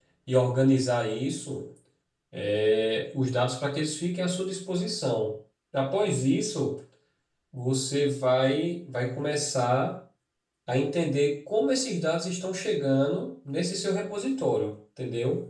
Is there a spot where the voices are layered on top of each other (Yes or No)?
No